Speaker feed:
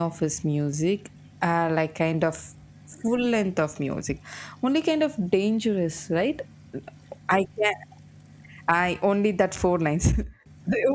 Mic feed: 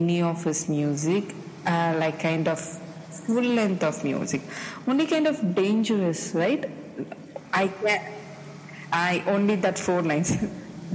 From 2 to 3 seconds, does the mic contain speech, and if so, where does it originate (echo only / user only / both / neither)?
echo only